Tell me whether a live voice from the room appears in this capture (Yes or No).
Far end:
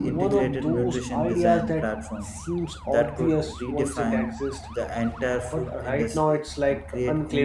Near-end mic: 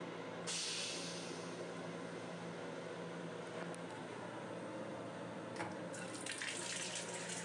No